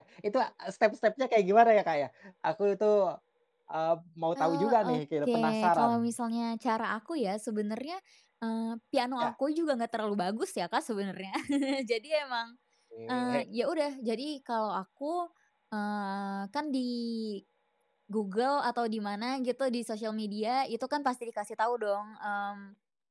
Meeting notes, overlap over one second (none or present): present